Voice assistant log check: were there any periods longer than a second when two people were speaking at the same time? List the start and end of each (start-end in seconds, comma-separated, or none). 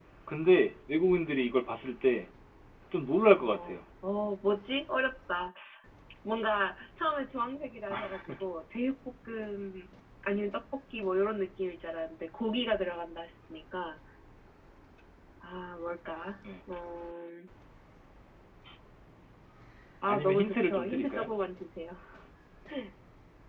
20.1-21.3